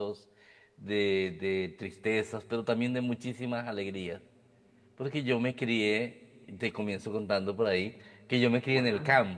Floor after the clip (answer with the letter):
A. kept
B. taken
A